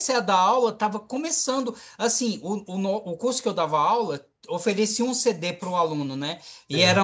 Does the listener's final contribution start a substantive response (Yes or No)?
No